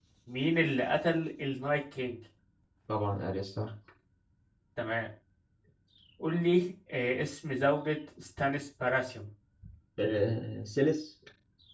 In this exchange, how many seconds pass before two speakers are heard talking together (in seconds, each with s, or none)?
none